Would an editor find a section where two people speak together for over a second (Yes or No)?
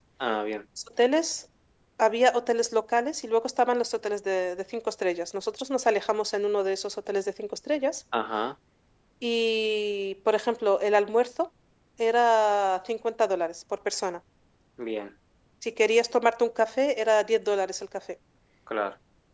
No